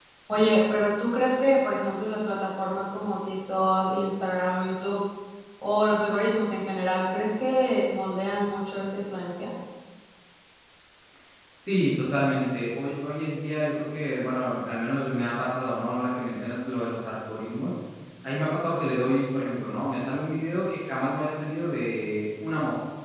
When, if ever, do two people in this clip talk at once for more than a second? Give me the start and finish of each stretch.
none

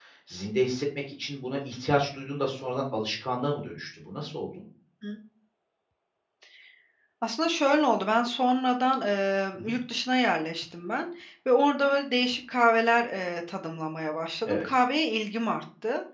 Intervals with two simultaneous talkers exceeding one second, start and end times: none

